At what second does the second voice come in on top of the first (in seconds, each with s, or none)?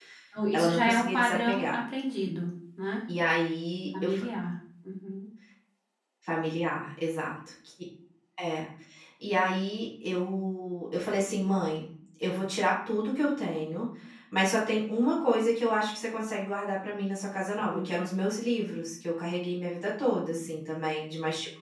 0.5 s